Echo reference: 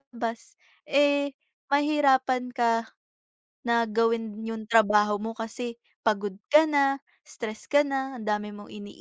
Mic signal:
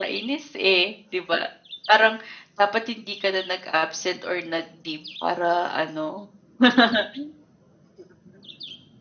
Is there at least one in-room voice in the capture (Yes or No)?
Yes